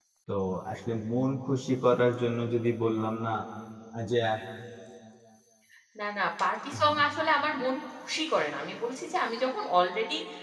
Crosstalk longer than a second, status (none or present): none